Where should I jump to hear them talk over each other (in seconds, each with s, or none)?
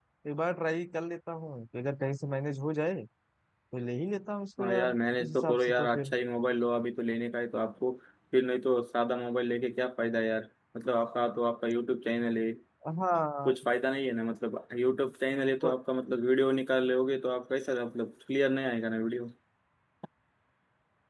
4.6 s